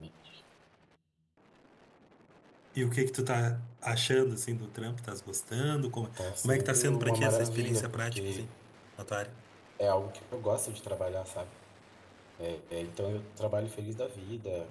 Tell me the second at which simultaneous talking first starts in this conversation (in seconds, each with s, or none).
6.2 s